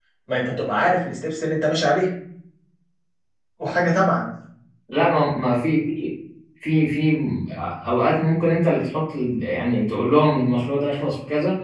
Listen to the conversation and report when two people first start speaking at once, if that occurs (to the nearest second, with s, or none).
none